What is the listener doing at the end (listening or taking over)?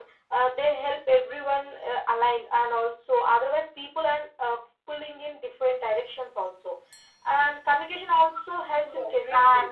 taking over